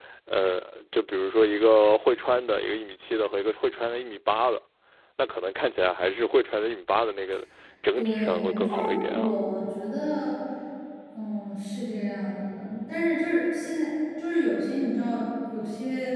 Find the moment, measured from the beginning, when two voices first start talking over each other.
8 s

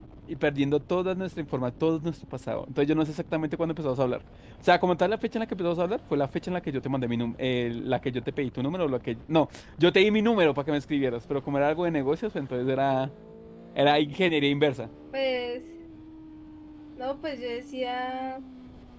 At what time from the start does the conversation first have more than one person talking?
none

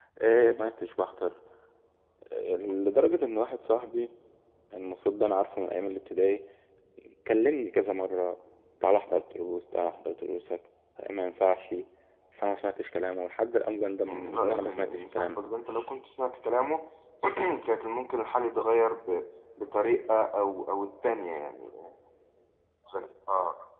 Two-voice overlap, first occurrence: 14 s

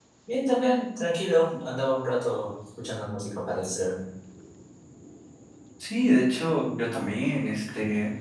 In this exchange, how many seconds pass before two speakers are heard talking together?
none

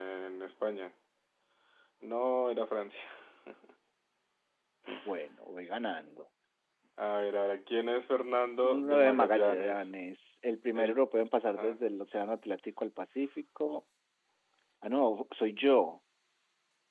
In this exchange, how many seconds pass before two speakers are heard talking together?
9 s

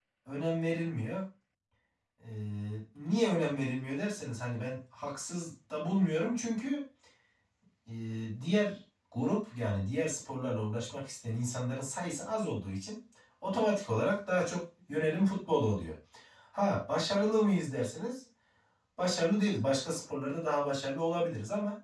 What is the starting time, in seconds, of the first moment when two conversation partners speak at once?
none

